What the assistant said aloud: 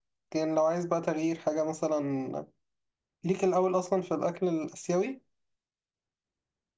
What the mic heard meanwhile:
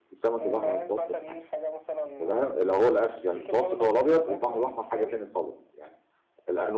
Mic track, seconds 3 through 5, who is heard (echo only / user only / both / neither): both